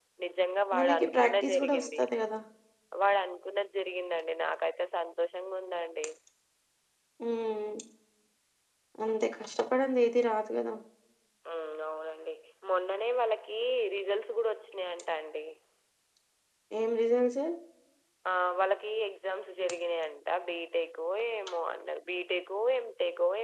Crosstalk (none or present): present